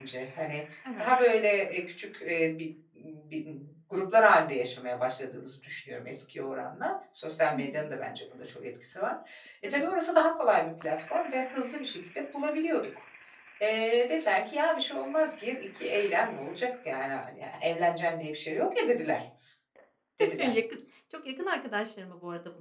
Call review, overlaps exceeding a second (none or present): none